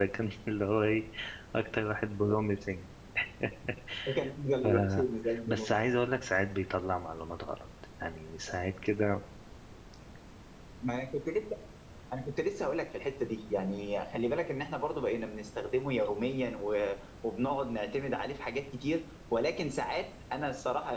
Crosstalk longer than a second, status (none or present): none